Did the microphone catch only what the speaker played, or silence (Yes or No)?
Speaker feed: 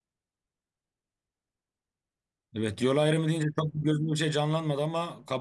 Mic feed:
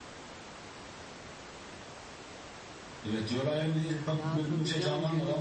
No